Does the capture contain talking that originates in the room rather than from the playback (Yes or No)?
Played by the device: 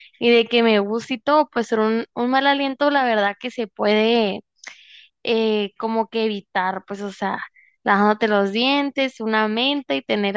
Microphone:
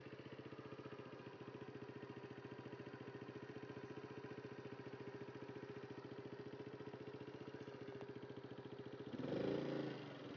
No